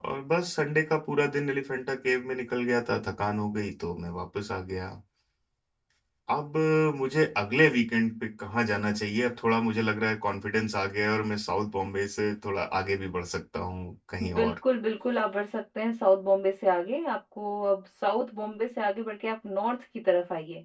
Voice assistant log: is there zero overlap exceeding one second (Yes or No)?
Yes